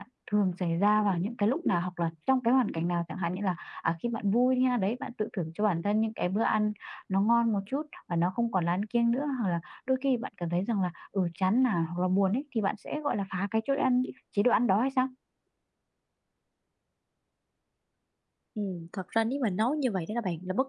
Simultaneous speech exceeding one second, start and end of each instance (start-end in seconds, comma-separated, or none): none